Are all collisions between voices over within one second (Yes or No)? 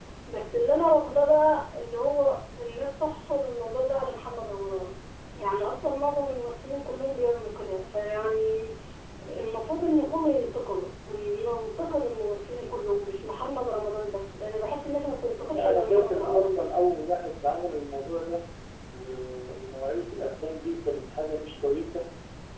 No